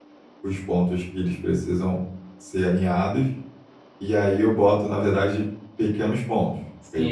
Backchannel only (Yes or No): No